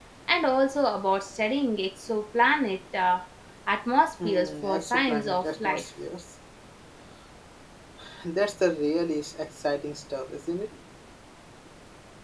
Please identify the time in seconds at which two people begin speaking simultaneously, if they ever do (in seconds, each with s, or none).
4.2 s